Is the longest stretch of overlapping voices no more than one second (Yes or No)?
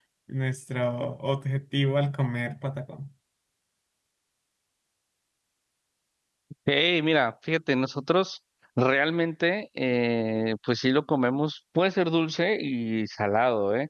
Yes